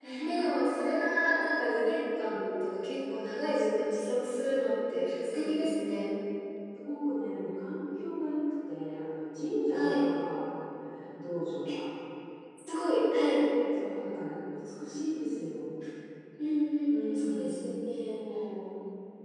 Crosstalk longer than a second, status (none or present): present